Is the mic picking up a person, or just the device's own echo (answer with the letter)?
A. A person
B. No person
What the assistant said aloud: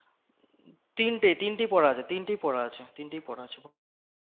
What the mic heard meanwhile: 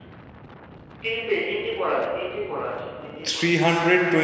A